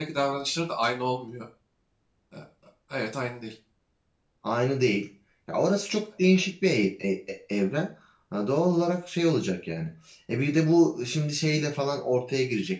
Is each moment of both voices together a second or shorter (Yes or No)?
Yes